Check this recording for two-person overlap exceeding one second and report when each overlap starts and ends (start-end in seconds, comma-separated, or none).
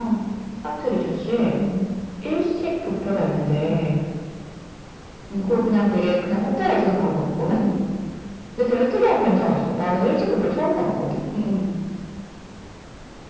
none